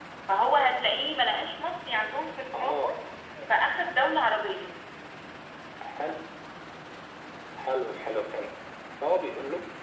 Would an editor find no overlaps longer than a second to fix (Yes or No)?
Yes